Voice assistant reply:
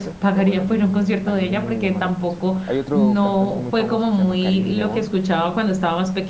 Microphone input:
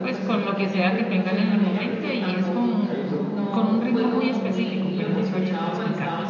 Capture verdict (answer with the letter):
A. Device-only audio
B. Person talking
B